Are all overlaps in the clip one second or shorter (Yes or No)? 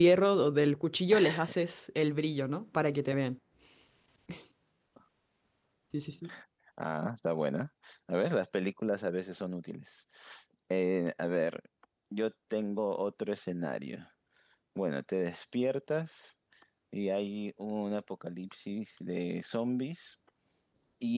Yes